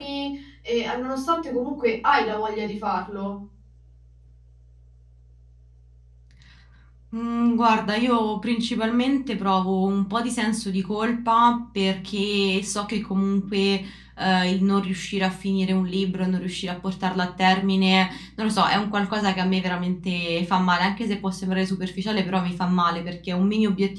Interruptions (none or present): none